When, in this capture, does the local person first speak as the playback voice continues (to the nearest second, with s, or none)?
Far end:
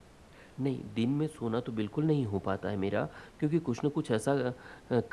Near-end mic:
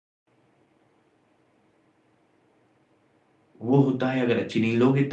4 s